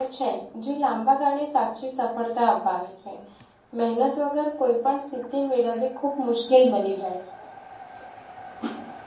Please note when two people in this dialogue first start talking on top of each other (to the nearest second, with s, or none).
none